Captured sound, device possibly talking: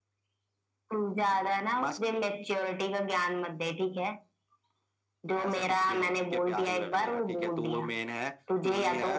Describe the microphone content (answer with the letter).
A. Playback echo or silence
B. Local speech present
A